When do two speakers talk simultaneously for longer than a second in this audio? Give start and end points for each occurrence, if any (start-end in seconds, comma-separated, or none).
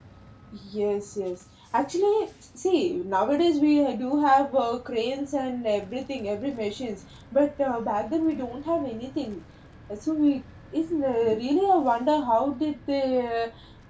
none